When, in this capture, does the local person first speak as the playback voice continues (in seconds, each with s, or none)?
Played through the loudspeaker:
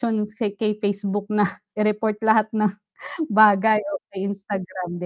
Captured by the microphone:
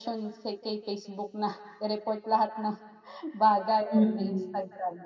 3.9 s